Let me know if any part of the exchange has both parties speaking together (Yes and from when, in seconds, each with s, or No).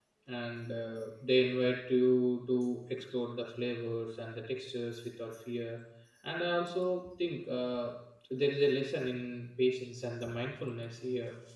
No